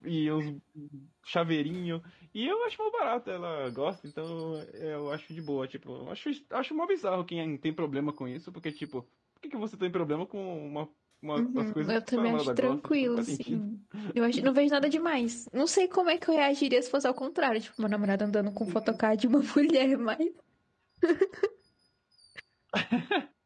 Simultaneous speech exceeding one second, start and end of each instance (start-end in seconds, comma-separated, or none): 11.4-13.6